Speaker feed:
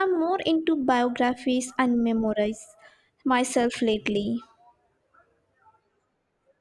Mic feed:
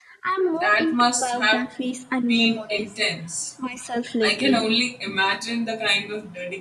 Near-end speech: present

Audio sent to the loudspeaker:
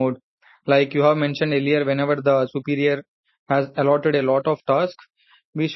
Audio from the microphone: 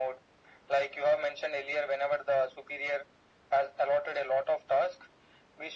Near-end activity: none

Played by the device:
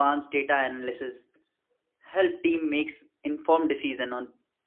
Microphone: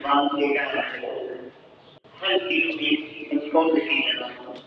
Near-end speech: none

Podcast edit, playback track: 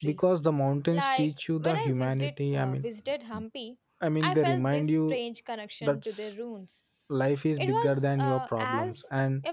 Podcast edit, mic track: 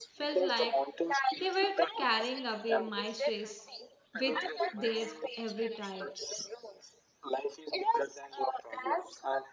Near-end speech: present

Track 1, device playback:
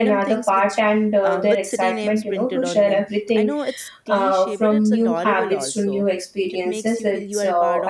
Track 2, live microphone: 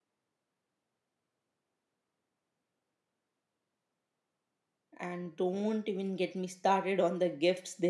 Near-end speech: present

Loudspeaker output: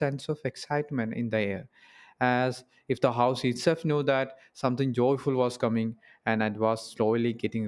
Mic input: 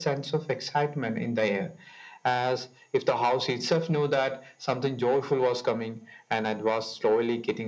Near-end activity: none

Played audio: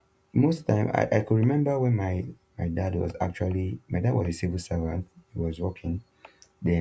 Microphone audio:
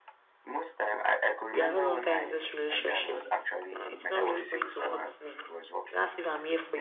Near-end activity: present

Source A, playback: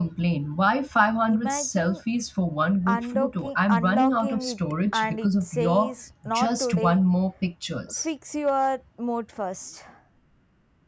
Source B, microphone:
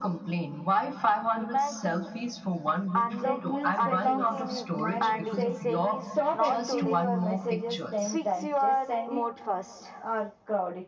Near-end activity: present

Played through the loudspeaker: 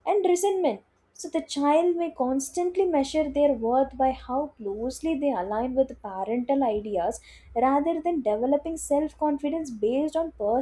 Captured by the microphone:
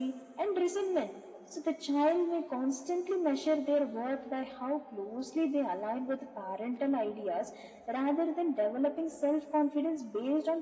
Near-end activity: none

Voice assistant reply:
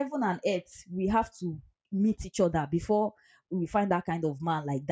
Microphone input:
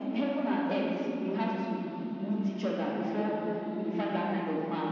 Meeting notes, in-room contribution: none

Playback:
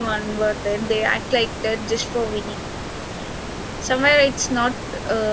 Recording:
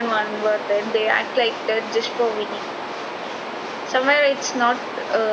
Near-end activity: none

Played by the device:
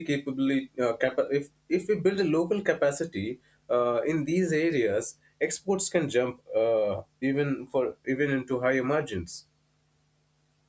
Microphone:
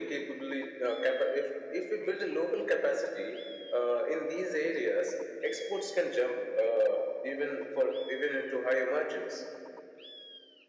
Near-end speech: none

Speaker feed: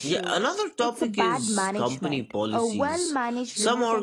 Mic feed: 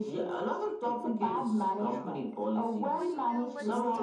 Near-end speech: present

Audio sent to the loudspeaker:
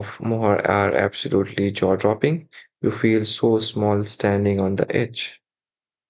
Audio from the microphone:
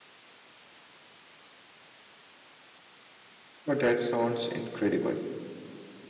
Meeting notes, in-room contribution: present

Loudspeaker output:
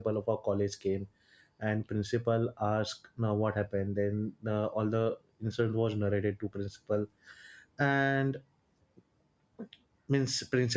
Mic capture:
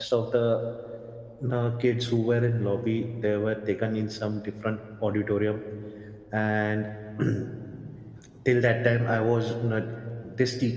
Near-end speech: present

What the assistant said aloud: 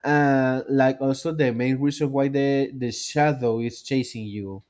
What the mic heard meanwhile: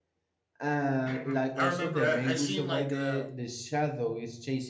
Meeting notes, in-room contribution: present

